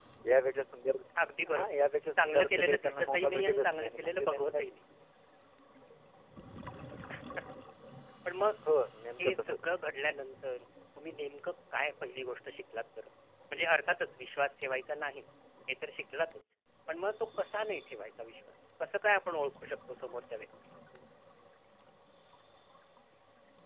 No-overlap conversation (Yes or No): No